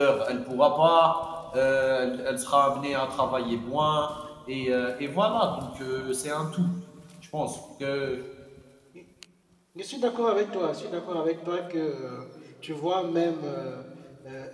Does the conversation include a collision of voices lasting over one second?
No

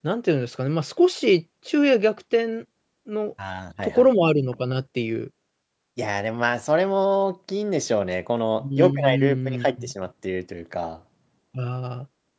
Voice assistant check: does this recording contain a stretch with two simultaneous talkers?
Yes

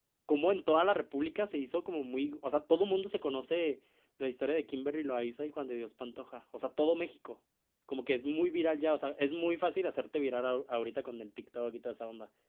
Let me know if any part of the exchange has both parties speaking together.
No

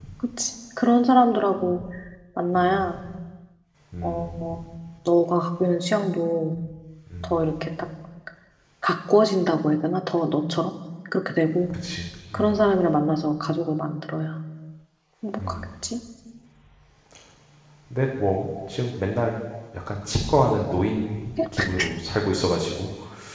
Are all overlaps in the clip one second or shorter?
Yes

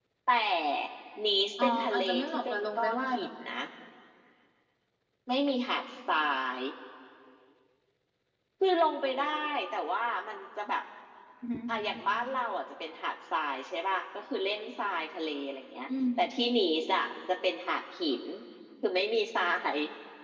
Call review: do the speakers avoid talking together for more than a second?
No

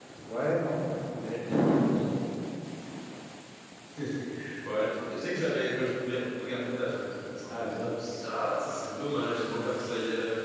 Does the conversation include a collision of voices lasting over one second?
No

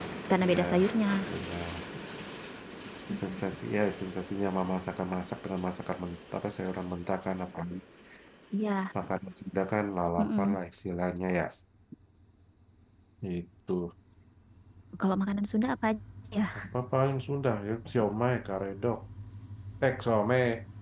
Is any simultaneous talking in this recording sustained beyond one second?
No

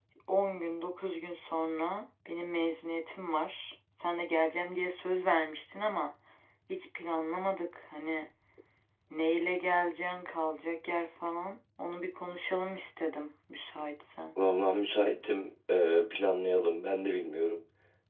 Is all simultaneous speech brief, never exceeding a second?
Yes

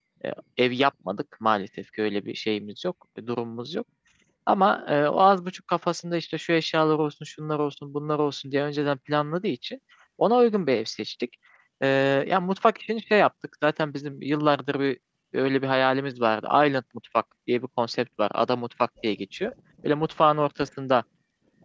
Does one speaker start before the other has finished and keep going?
No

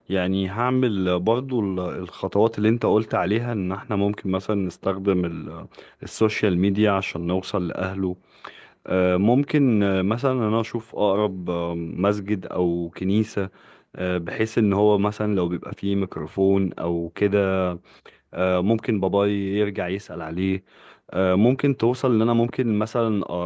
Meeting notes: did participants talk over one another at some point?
No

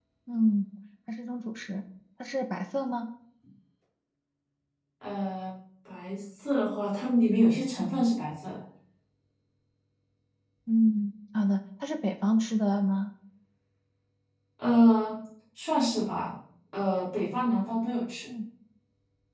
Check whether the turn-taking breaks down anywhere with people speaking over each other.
No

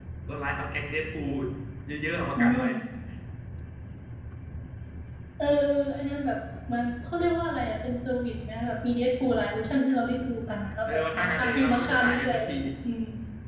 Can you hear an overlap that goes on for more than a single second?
Yes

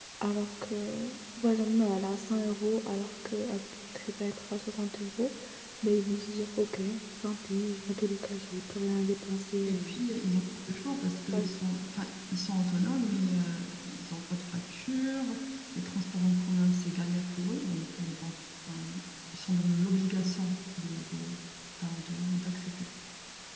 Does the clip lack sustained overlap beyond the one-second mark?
Yes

